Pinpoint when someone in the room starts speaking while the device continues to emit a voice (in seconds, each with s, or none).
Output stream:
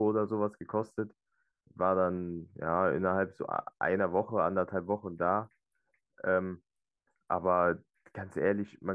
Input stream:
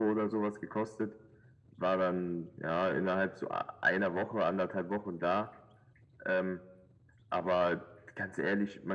none